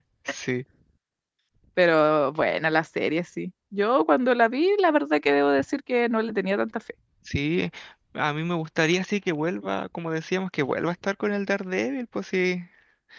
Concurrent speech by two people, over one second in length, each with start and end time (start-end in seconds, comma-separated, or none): none